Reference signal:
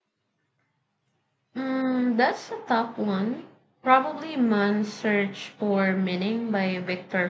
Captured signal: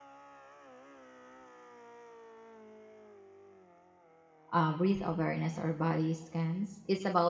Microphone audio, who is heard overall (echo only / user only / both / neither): user only